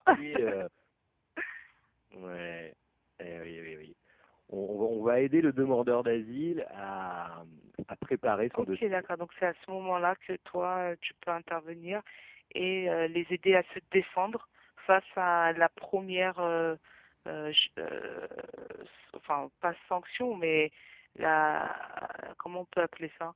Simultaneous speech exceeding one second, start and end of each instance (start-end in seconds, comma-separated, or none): none